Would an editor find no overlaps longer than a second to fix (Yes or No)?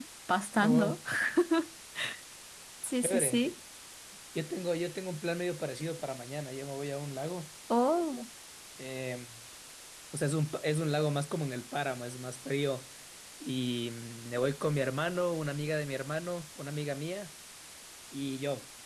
Yes